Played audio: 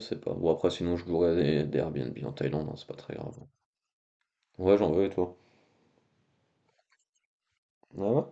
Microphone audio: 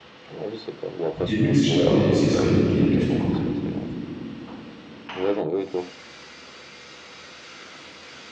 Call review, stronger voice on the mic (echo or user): user